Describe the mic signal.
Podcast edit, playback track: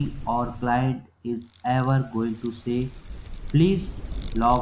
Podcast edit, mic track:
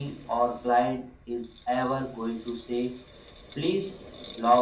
echo only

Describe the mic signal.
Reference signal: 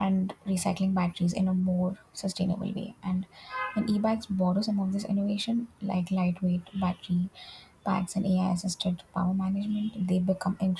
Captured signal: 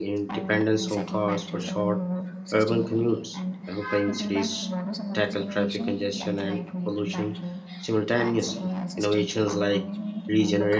both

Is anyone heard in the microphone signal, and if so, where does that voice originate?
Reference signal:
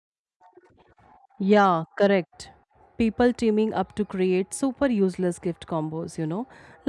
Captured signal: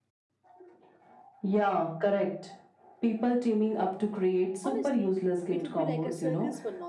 both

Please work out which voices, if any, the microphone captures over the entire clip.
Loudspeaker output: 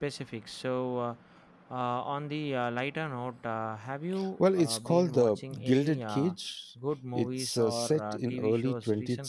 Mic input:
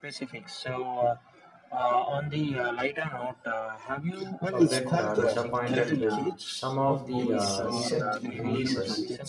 both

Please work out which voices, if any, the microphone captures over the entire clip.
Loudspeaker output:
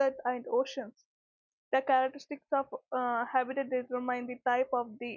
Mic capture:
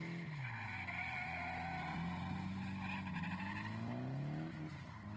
neither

